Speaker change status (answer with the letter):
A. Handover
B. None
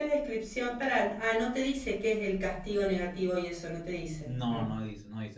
A